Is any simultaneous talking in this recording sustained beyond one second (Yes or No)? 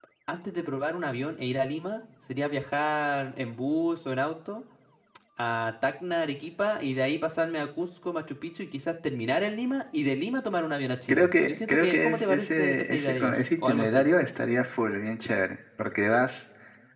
Yes